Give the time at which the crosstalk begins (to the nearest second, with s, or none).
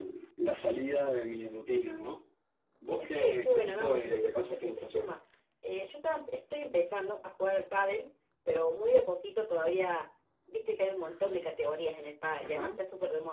3 s